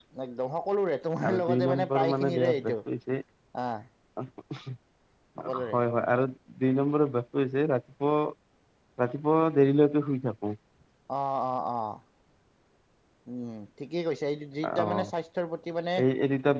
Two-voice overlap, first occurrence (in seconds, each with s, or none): 1.2 s